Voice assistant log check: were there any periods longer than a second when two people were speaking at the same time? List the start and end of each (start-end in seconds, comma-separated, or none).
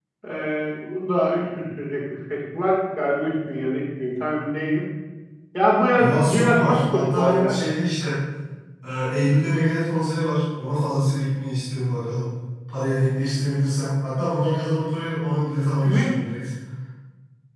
6.0-7.5